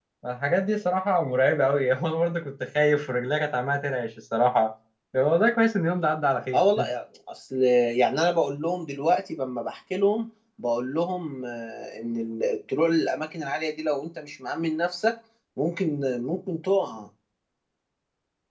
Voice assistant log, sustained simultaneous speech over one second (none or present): none